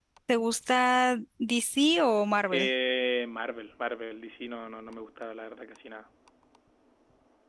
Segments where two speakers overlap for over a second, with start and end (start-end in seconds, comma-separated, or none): none